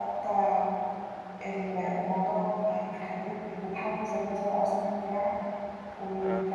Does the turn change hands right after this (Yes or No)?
No